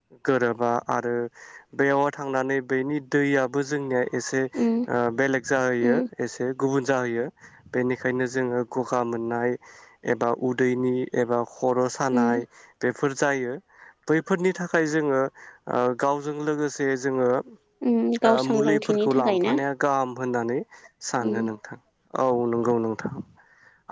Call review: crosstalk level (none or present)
present